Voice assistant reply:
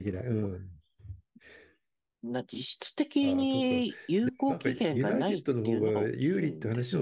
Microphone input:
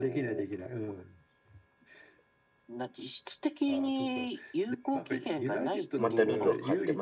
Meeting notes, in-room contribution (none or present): present